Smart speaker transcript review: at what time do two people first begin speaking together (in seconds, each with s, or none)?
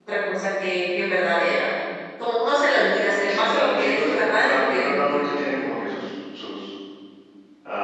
3.1 s